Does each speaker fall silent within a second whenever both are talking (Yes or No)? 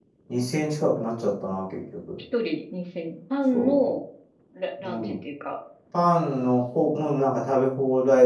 Yes